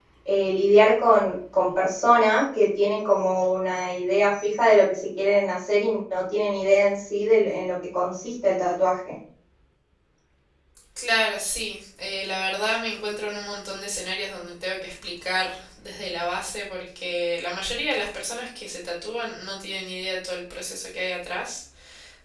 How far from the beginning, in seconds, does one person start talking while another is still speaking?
none

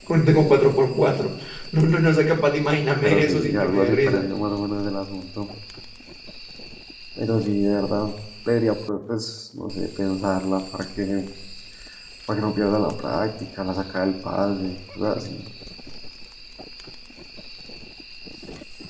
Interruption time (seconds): 3.0 s

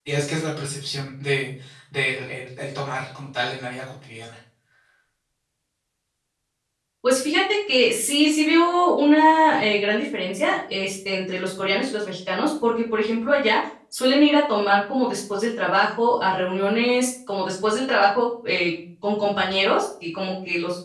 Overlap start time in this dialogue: none

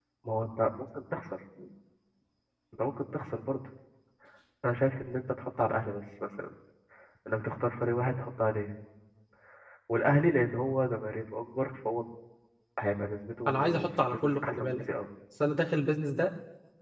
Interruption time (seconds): 13.5 s

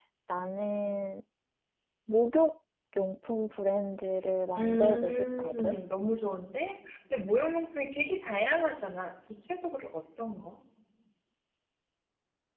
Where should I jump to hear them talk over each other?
4.6 s

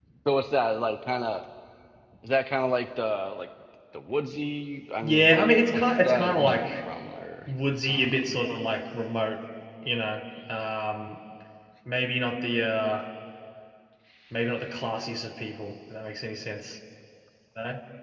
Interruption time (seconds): 5.0 s

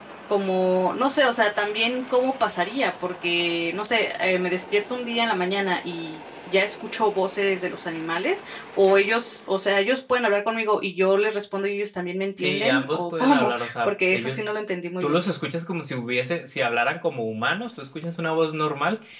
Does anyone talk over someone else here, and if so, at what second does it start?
12.4 s

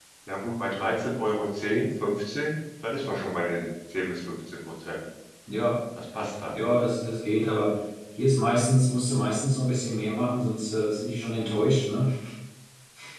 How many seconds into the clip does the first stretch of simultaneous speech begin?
none

